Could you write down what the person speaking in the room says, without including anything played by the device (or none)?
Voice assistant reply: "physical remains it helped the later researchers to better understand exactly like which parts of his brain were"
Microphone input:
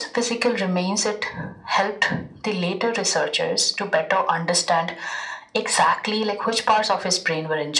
none